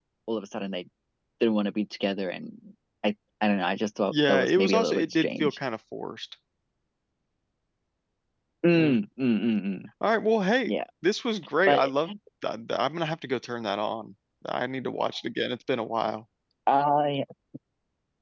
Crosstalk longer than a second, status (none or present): present